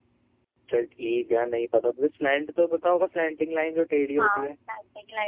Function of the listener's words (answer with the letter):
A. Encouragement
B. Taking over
B